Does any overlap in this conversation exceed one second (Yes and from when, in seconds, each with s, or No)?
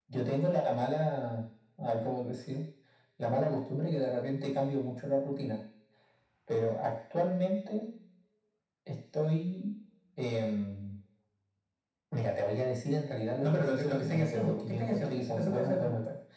Yes, from 13.4 s